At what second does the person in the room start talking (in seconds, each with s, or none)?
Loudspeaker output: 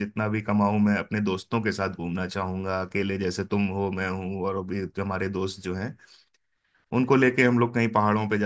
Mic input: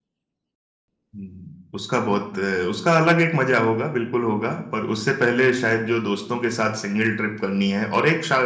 1.1 s